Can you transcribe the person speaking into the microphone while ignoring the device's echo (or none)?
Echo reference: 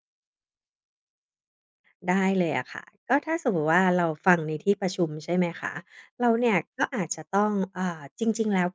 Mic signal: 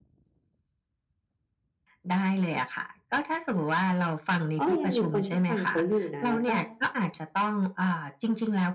อ้อยังมีคนที่ฟังเขาอยู่นะ แล้วก็